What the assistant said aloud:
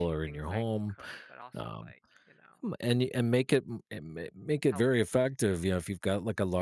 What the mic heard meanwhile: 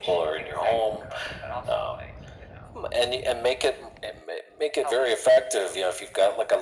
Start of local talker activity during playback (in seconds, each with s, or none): none